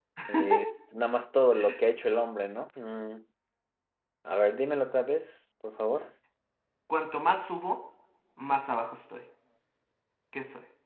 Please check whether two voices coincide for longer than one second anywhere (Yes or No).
No